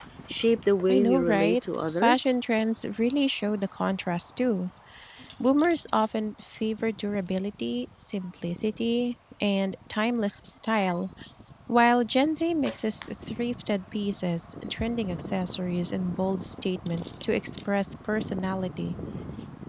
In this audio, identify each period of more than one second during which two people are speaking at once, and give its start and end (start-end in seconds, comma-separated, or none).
0.9-2.3